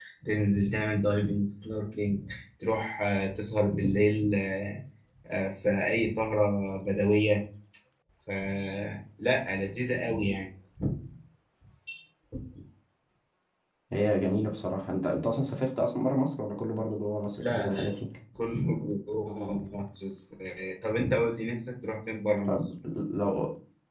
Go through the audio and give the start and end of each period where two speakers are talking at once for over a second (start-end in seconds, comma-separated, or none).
none